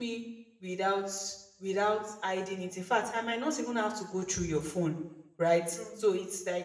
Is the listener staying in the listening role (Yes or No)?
Yes